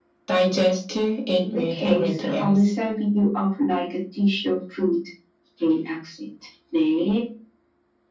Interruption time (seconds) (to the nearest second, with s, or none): 1 s